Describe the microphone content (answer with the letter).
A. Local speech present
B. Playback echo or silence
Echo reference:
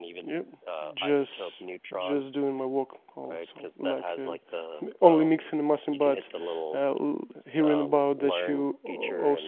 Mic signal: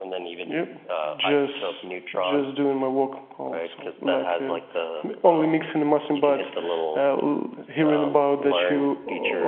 B